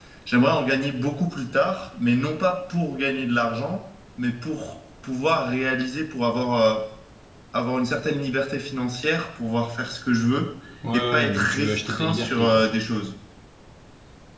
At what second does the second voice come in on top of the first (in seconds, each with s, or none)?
10.9 s